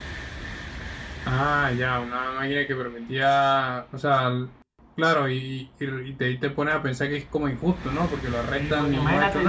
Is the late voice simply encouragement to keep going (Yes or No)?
No